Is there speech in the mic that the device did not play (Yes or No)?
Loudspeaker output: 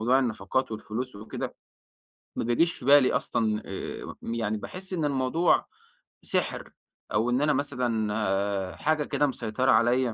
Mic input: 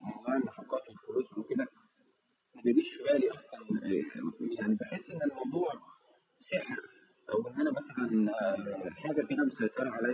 Yes